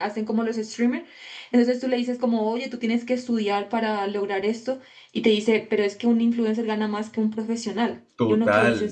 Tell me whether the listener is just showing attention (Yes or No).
No